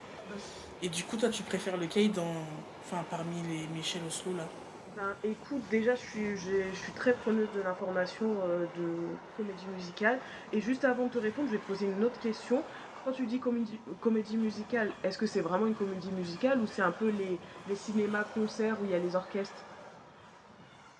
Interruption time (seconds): none

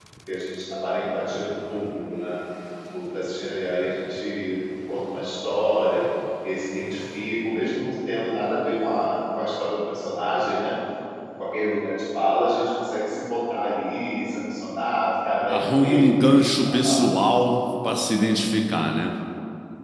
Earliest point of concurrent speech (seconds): 15.5 s

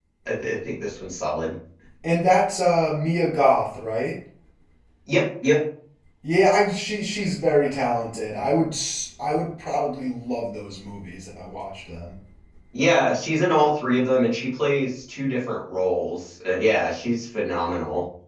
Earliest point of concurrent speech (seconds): none

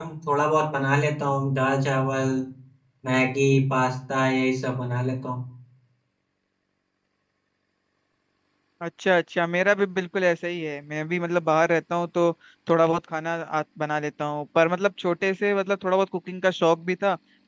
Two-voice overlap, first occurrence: none

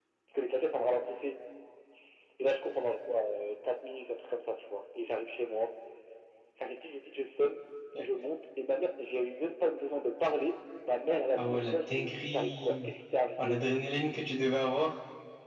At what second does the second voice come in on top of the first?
11.3 s

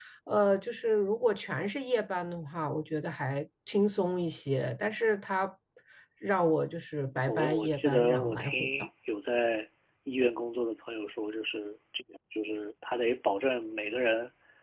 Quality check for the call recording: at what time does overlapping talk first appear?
7.3 s

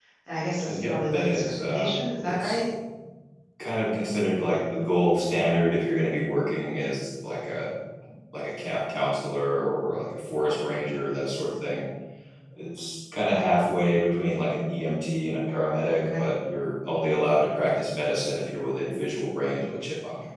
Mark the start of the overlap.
0.7 s

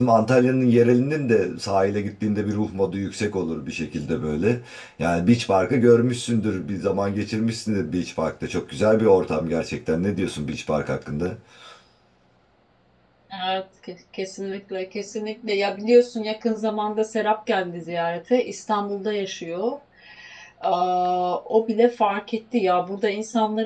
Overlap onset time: none

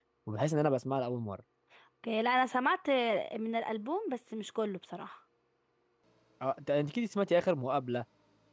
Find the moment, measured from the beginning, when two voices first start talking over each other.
none

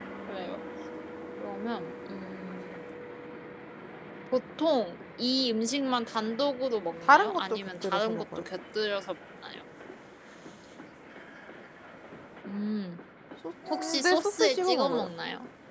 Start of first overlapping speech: 7.0 s

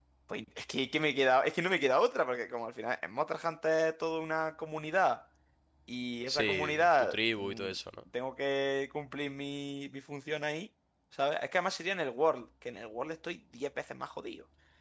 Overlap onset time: 6.3 s

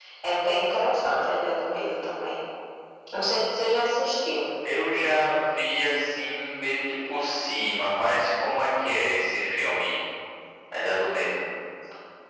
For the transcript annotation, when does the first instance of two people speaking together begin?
none

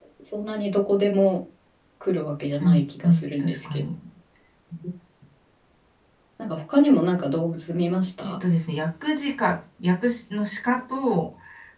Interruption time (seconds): 2.6 s

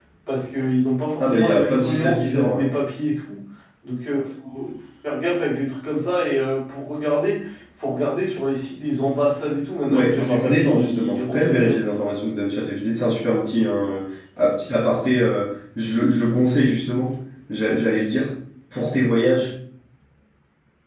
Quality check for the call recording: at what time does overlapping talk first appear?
1.2 s

